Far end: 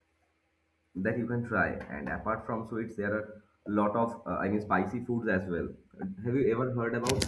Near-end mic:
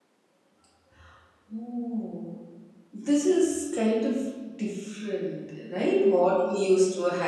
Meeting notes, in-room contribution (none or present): present